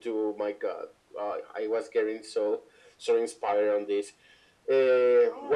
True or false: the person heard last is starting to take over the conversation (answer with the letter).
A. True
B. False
A